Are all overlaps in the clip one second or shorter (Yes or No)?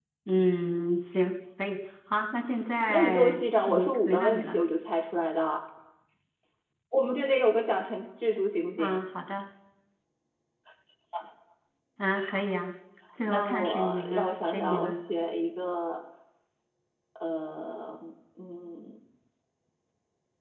No